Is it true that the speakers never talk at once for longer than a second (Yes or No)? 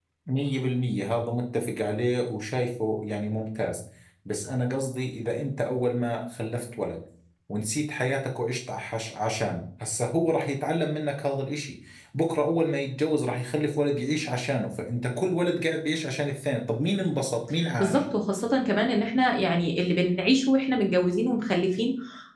Yes